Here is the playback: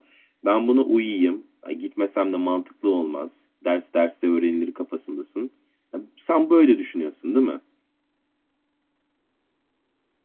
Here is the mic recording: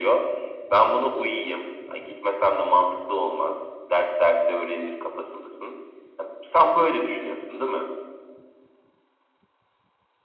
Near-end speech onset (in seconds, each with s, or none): none